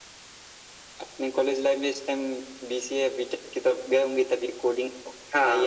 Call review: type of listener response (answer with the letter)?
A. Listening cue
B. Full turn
B